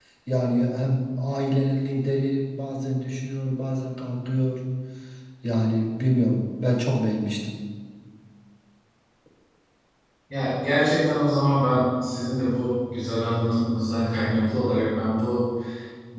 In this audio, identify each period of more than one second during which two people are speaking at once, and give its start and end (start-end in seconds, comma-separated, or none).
none